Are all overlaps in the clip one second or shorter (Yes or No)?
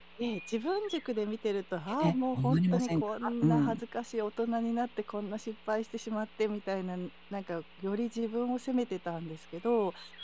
No